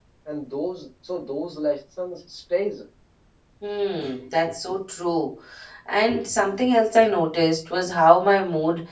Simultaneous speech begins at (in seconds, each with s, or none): none